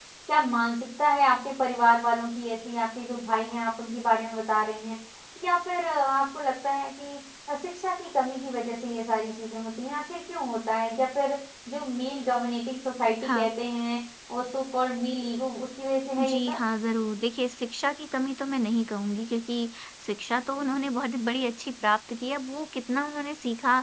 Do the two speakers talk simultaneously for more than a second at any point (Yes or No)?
No